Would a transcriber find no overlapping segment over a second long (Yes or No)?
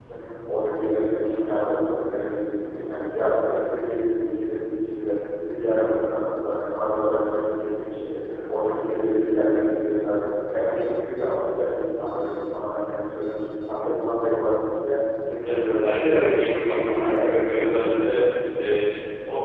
No